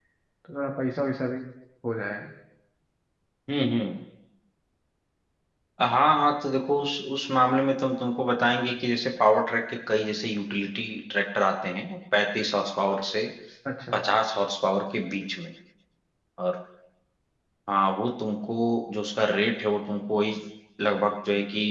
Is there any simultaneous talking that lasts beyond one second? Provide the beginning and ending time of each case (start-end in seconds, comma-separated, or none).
none